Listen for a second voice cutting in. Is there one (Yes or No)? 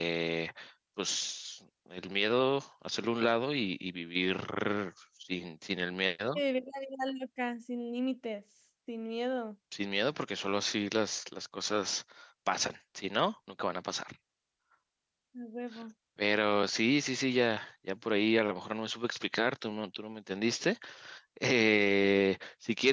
No